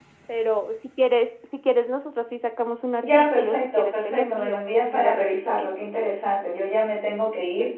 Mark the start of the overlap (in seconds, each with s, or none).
3.0 s